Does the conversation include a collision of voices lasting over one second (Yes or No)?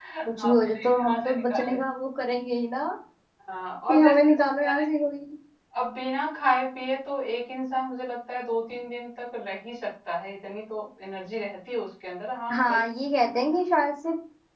Yes